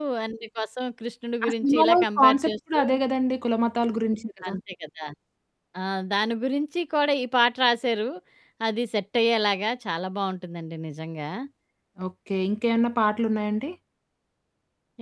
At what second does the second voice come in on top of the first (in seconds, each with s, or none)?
1.4 s